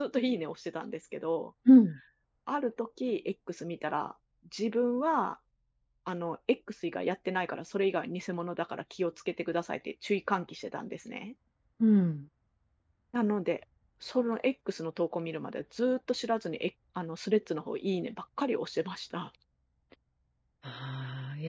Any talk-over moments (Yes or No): No